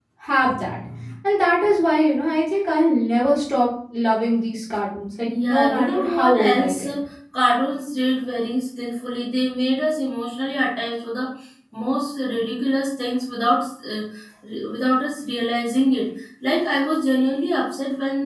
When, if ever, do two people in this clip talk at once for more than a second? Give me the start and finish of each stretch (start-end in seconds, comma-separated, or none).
5.2-6.9